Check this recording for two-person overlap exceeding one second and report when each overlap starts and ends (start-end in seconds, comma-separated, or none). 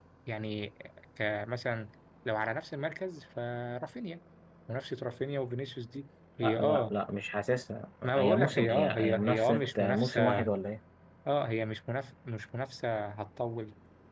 8.0-10.4